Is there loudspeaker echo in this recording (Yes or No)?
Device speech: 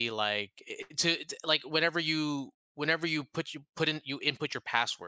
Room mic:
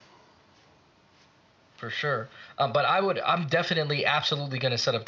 No